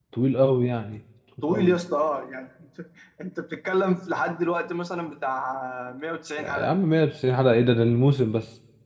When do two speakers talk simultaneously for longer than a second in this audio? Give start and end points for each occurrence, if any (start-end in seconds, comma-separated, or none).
none